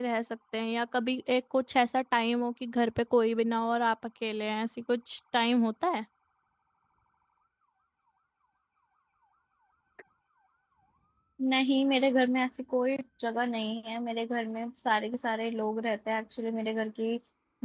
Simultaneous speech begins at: none

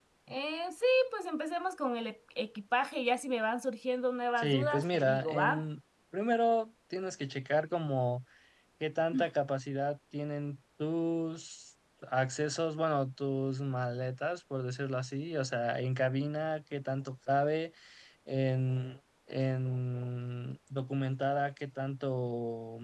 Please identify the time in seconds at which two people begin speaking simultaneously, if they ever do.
4.4 s

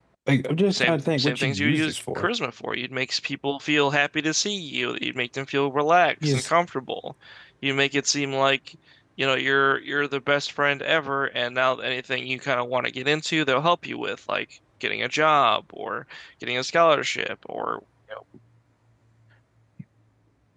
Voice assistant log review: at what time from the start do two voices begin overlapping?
0.7 s

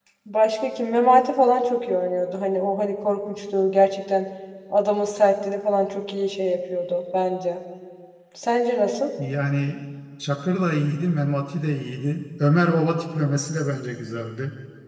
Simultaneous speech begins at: none

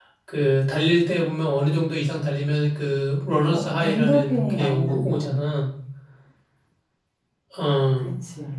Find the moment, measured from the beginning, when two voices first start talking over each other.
3.5 s

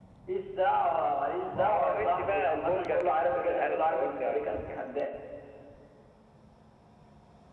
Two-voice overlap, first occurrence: 1.6 s

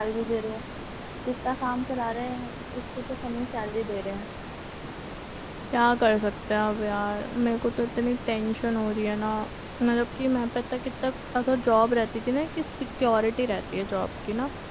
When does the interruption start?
none

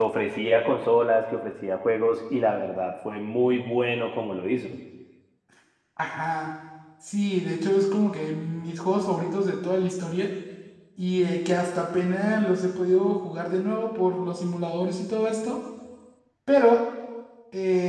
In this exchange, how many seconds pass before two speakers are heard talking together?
none

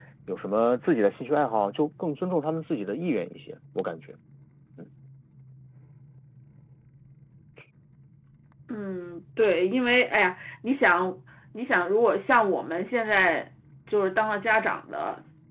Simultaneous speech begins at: none

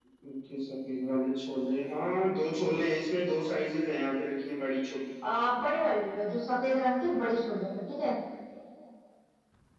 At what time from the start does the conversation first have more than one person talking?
none

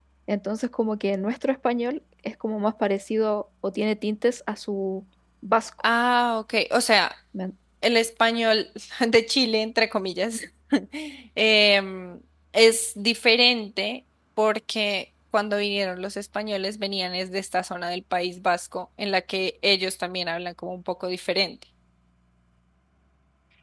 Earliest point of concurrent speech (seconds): none

